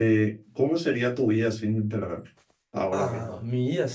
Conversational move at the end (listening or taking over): taking over